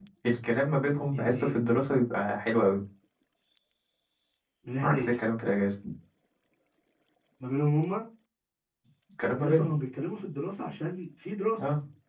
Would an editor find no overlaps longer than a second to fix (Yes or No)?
Yes